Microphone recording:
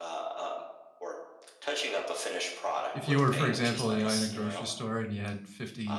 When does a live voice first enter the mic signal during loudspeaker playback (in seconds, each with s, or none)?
2.9 s